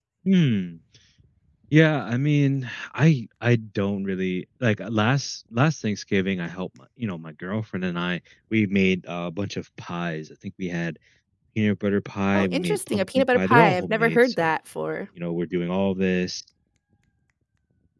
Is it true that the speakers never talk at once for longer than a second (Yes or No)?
No